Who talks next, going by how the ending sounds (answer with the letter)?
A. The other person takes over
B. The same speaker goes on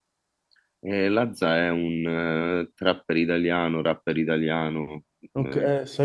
A